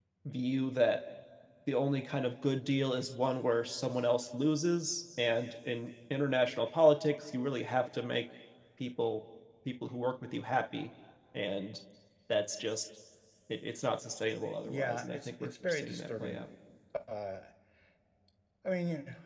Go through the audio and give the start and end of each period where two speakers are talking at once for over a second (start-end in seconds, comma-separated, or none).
14.6-16.5